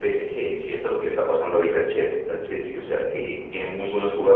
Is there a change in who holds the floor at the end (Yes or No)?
No